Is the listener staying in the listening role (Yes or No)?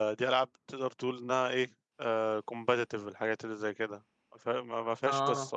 Yes